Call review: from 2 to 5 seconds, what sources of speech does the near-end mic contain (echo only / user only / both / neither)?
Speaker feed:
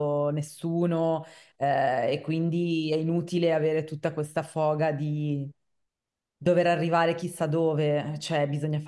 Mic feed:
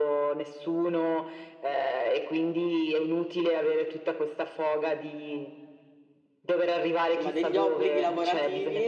echo only